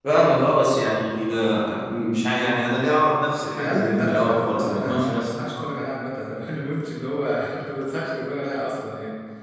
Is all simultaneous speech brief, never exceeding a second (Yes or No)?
No